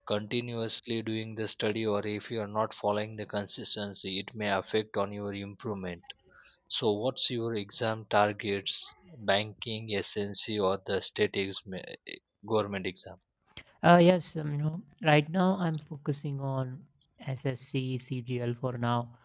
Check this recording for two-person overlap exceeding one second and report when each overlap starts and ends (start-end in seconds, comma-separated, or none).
none